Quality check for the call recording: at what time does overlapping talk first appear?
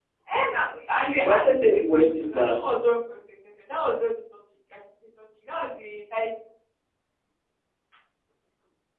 1.2 s

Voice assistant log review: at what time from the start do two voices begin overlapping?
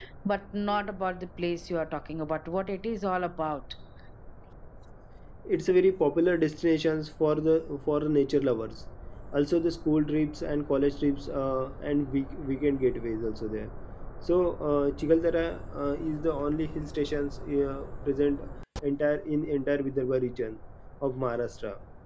none

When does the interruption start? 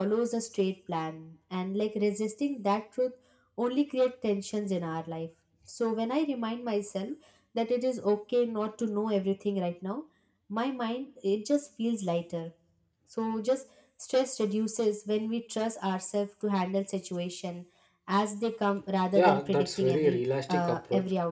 19.1 s

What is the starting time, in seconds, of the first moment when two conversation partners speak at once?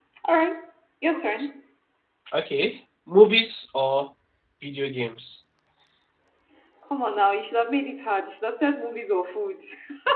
none

